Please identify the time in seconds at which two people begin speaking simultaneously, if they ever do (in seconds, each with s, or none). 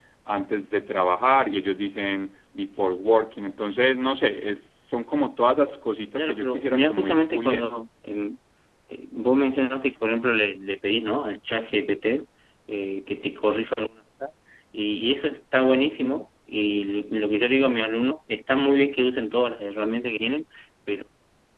6.2 s